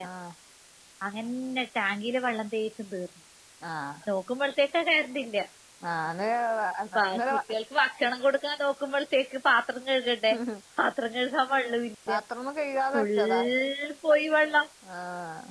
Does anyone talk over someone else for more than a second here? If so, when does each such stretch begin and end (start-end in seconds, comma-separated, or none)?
none